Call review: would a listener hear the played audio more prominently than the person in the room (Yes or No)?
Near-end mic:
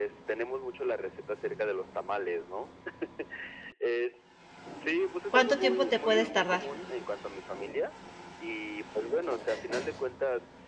No